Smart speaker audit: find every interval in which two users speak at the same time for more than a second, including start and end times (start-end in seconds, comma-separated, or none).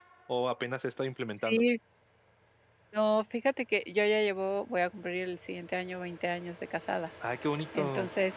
none